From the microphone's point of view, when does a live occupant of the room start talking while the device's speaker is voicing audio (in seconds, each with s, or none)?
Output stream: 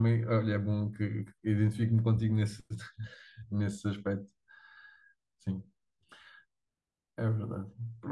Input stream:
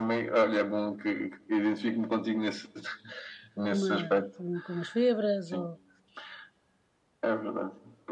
3.6 s